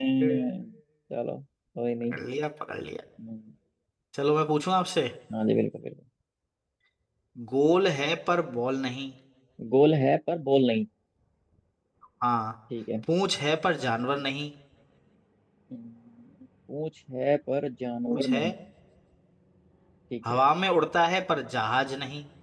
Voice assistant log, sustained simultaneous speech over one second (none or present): none